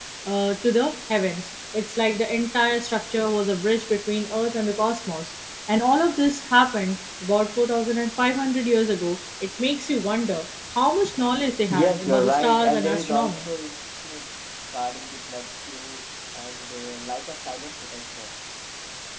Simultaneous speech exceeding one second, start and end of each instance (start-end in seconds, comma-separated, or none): 11.7-13.5